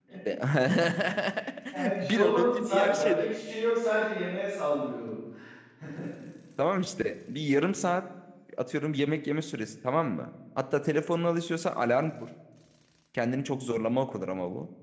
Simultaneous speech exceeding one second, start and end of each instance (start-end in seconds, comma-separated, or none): 2.0-3.3